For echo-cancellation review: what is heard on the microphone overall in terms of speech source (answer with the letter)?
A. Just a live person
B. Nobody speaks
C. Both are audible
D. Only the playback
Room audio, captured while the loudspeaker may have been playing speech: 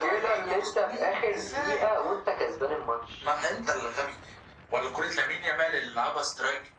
D